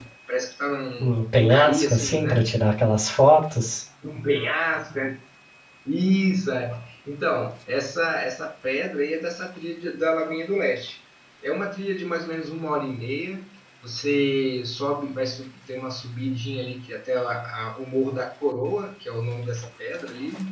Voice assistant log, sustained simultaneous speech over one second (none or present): present